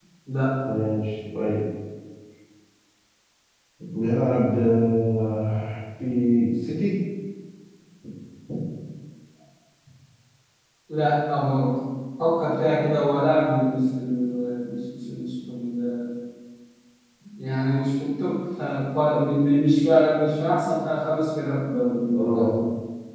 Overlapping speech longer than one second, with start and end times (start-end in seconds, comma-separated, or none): none